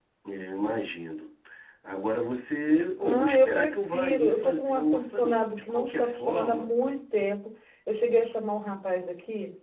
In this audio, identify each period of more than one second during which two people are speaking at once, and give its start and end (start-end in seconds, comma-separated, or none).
3.0-6.7